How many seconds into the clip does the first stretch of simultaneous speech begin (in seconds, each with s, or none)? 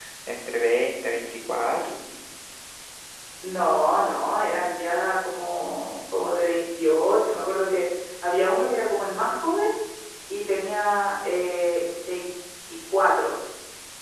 none